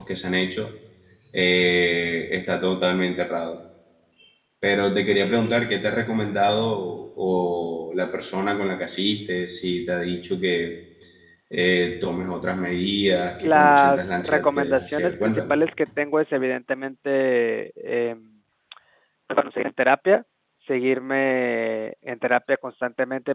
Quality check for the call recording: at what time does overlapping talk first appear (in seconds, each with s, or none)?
13.4 s